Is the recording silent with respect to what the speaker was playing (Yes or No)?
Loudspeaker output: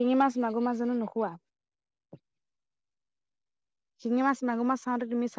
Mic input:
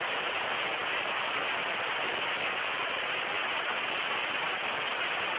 Yes